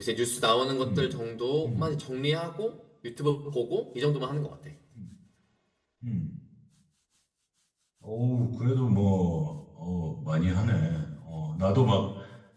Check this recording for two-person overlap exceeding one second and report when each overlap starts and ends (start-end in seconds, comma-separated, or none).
none